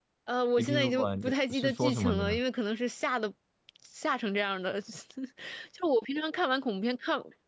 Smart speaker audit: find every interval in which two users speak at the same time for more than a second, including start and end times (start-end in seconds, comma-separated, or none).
0.6-2.4